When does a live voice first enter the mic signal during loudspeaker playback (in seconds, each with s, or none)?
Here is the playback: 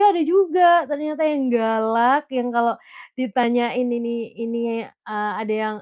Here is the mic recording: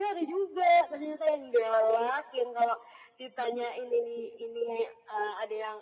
none